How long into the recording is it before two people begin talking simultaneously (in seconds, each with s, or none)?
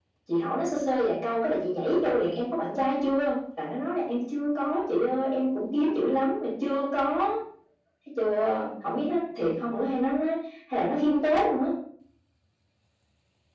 none